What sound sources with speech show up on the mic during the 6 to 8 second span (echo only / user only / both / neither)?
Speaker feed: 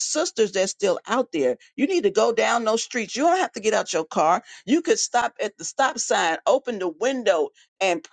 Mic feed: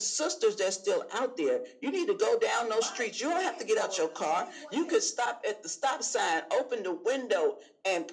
echo only